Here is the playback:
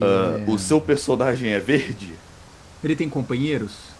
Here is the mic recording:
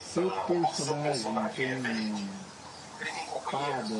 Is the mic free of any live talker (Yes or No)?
No